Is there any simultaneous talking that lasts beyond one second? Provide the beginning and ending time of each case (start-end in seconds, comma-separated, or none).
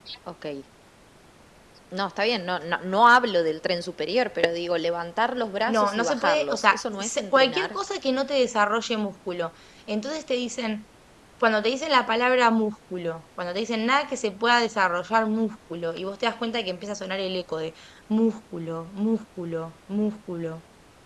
5.7-7.8